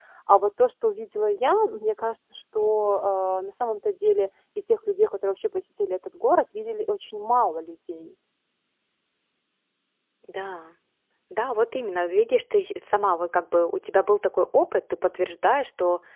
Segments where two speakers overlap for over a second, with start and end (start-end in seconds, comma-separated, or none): none